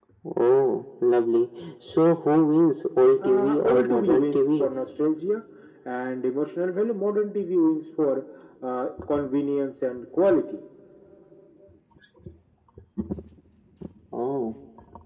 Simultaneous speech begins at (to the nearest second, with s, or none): 3 s